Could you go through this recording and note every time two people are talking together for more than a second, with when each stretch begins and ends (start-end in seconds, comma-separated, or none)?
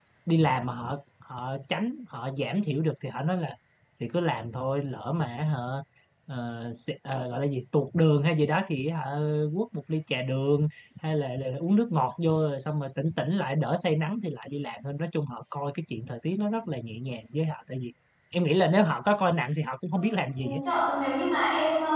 none